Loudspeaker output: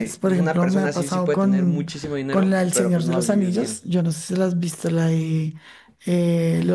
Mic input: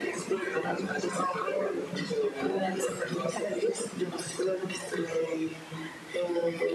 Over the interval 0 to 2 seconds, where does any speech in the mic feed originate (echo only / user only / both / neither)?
echo only